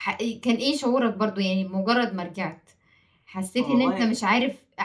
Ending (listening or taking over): listening